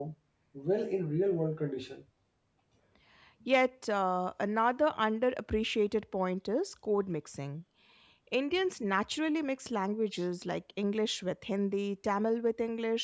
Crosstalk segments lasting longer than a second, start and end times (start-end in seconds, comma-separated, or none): none